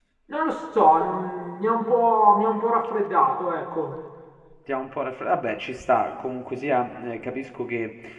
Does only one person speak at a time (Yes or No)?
Yes